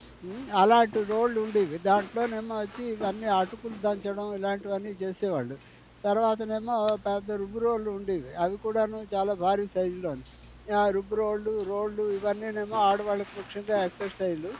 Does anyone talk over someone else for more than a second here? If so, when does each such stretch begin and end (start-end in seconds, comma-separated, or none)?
none